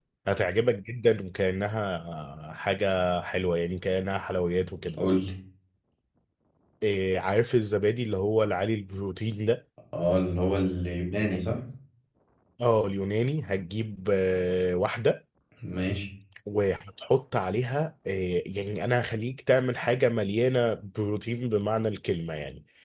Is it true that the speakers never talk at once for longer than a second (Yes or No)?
Yes